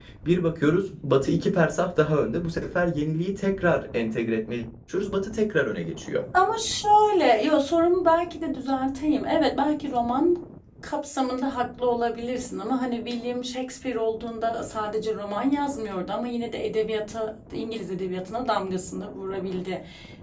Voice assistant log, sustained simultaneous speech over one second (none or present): none